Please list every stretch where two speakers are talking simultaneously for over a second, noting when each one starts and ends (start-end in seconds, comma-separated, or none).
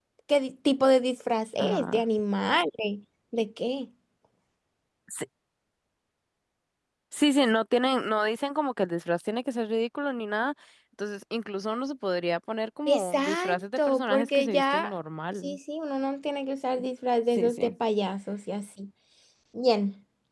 12.9-14.9